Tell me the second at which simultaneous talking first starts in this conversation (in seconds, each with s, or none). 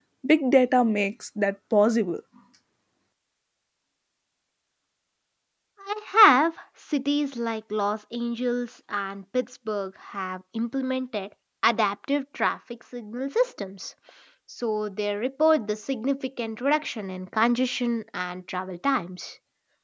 none